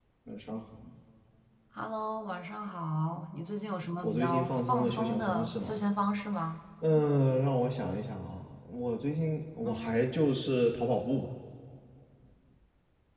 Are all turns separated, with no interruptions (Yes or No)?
No